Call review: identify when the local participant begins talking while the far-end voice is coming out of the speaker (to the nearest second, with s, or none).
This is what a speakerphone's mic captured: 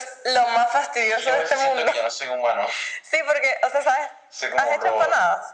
none